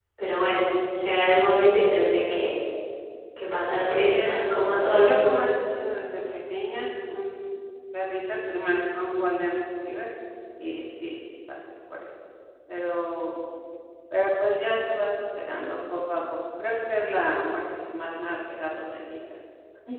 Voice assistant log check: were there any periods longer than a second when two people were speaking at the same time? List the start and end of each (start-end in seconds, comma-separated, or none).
4.0-5.4